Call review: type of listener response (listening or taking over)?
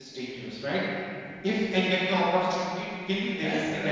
listening